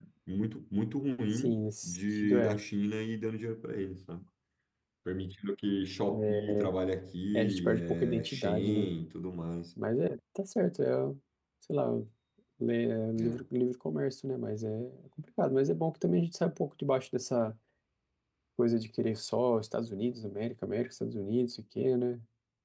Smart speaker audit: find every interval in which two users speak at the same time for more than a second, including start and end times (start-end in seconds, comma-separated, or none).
1.3-2.6, 7.3-8.9